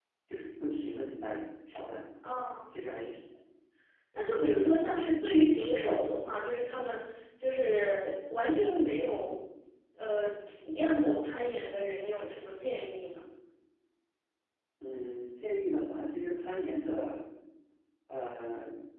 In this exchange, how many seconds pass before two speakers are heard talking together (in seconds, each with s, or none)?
none